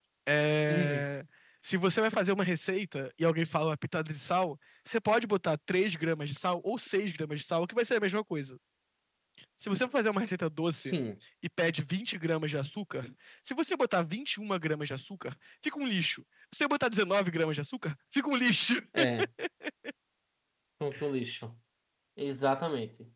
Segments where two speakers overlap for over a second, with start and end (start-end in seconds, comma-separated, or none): none